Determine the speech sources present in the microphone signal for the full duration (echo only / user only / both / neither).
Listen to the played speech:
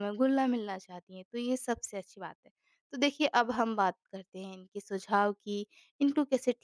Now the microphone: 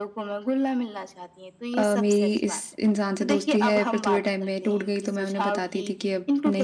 both